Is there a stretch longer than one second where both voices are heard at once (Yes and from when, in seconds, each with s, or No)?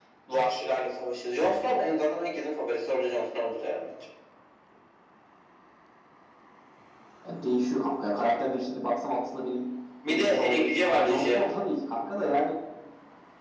Yes, from 10.1 s